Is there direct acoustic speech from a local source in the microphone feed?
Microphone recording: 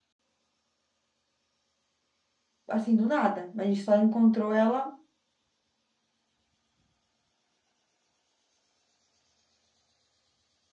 Yes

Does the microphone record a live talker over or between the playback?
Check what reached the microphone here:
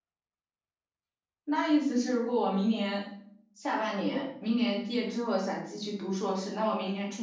Yes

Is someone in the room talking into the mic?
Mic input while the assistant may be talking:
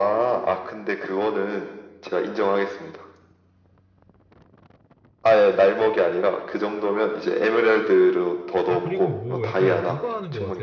Yes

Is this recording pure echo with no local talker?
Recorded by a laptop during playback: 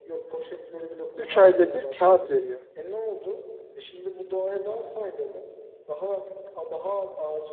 No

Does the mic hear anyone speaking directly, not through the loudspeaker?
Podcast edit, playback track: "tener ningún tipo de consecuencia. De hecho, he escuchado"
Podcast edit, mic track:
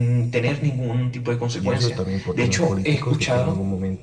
Yes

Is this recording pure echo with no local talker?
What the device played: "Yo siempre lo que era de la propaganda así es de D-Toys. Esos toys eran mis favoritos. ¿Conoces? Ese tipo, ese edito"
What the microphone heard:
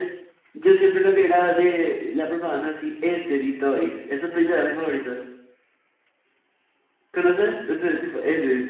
Yes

